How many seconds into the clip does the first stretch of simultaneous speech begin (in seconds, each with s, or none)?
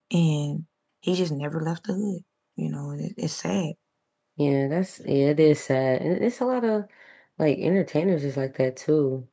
none